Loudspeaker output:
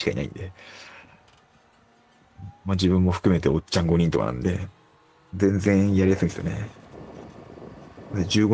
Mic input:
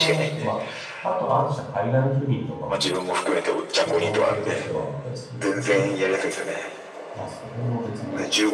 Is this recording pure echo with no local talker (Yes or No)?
No